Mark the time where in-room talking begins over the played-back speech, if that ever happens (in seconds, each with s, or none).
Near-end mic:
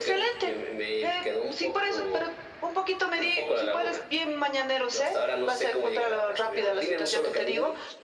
none